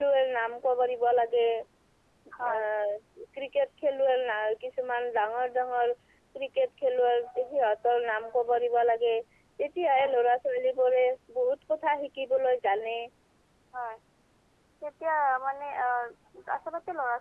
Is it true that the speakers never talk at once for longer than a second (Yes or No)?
Yes